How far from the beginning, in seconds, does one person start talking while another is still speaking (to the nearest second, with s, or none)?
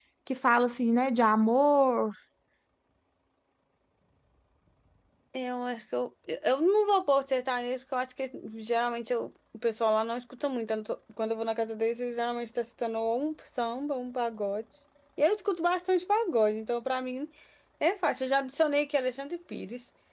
none